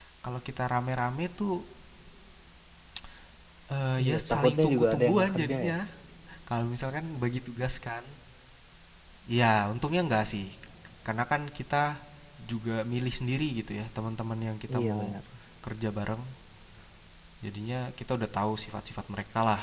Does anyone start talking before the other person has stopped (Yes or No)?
Yes